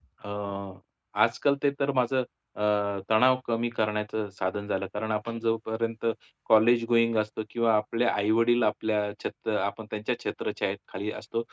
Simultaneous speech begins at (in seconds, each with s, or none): none